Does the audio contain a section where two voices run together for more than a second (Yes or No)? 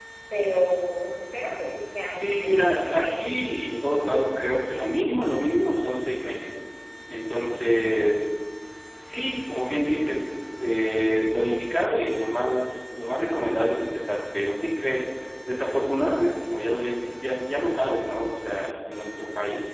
Yes